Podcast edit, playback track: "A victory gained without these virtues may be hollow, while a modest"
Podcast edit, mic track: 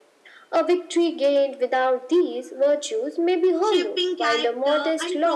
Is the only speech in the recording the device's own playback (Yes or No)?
No